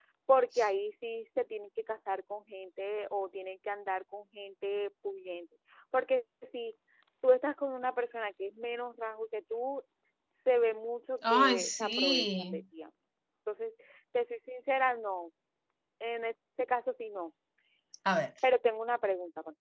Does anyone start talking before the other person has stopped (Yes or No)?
Yes